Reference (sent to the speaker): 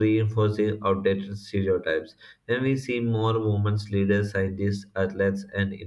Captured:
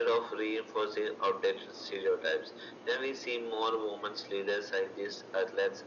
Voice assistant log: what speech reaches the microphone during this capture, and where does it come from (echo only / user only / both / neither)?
echo only